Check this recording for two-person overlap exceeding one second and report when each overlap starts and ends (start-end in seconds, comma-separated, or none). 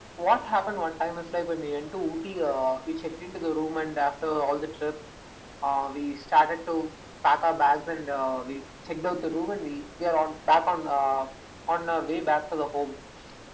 none